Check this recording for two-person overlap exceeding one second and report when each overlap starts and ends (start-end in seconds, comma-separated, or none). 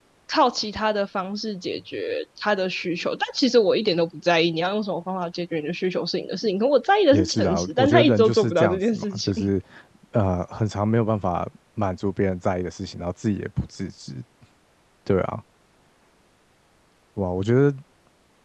7.1-9.3